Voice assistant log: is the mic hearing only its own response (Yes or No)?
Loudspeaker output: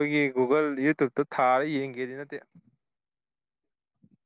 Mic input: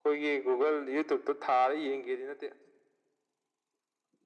Yes